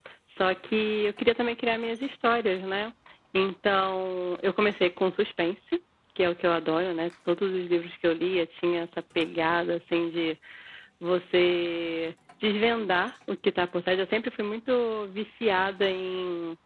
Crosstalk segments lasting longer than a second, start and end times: none

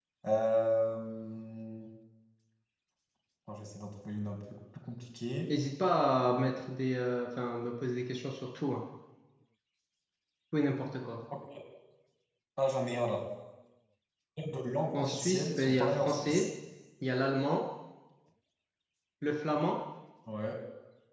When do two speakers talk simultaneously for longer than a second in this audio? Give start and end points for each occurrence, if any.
14.9-16.4

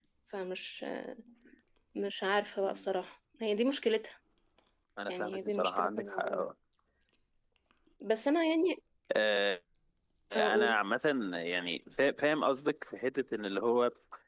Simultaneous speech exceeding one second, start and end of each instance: 5.1-6.5

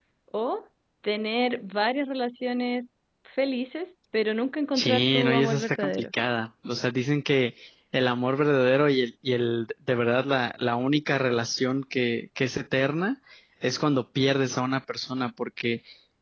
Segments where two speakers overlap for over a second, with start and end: 4.8-6.0

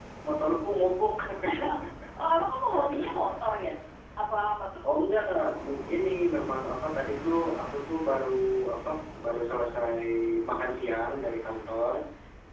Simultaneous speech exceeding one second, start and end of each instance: none

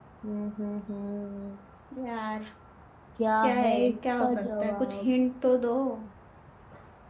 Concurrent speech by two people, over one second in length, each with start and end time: 3.4-5.0

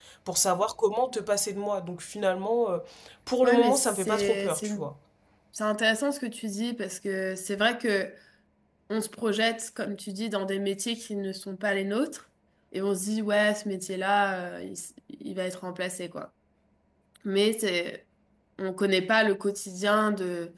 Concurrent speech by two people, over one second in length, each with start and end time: 3.4-4.9

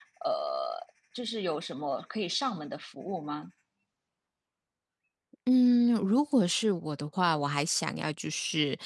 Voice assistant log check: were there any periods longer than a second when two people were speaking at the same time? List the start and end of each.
none

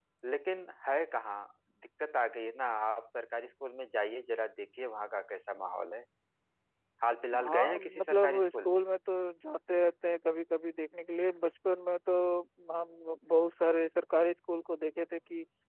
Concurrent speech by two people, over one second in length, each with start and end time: 7.4-8.8

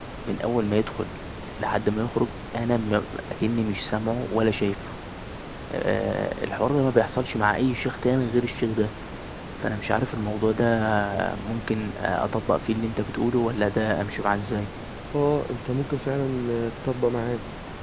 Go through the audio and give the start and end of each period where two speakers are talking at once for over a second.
none

